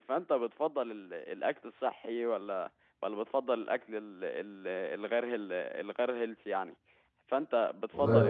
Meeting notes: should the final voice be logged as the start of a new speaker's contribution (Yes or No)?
Yes